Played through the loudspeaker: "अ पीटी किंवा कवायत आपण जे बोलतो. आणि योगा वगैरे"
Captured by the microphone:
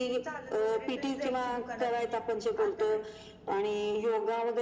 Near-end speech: present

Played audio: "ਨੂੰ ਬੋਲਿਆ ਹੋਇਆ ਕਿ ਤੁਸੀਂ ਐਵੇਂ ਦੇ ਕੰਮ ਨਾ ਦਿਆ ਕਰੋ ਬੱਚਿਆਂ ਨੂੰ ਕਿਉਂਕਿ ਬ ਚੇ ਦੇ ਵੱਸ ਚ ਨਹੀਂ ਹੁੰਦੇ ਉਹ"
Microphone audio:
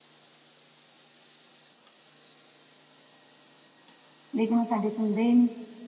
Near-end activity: present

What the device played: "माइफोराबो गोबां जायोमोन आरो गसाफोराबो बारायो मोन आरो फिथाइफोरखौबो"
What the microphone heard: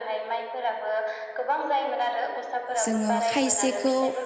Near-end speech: present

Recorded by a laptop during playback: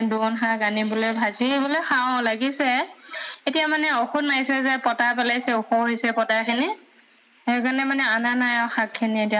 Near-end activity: none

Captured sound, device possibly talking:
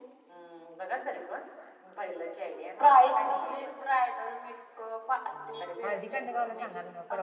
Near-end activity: present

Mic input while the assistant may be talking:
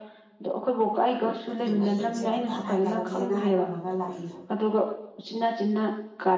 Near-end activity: present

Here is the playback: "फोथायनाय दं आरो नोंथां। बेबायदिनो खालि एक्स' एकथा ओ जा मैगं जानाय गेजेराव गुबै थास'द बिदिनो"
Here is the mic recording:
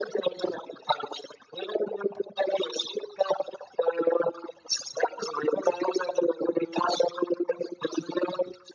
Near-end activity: none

